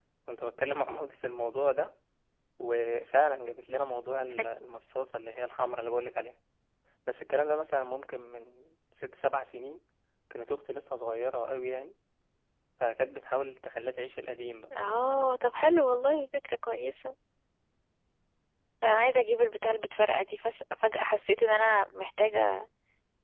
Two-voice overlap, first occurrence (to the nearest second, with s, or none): none